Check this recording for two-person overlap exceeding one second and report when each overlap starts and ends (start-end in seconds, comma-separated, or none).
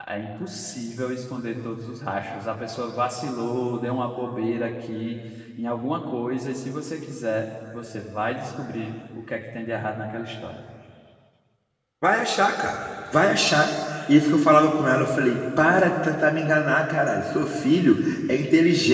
none